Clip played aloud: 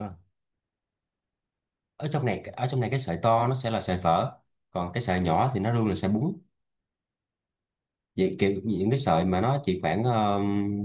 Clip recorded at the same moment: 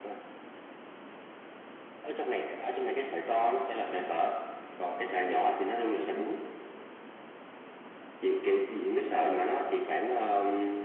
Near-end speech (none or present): none